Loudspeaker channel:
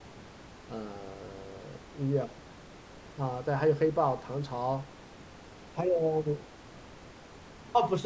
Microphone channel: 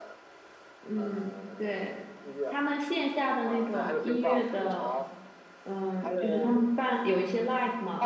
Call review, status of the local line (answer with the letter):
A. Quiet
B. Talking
B